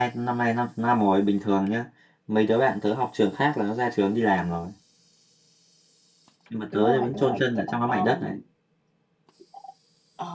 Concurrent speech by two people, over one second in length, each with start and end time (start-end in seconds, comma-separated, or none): 6.7-8.4